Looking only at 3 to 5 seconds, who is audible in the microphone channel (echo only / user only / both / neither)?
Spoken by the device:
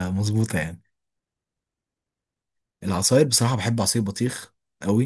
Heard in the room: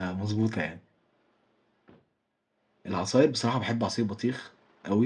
echo only